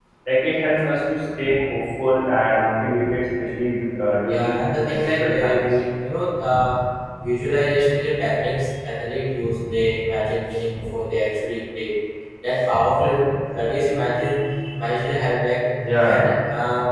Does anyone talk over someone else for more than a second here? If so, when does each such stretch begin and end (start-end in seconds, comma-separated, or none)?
4.2-5.6